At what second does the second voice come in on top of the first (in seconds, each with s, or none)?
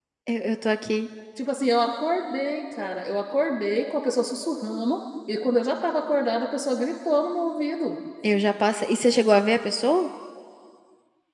none